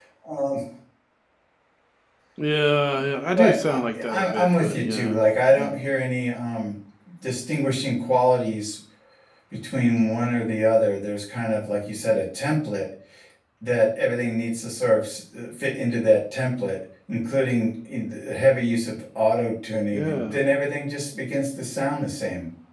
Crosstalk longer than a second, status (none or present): present